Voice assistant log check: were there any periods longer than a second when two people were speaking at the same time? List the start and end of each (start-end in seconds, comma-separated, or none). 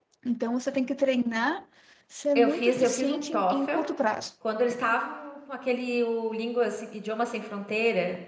2.4-3.8